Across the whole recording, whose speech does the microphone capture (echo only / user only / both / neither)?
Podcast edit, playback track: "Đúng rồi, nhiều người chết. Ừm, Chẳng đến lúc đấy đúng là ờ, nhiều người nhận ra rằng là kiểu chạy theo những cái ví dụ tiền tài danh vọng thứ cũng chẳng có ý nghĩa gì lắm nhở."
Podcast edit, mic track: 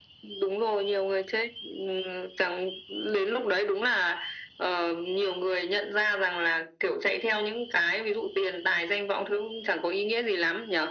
echo only